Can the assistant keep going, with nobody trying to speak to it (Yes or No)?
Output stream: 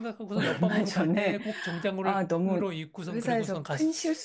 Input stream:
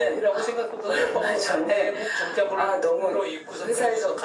Yes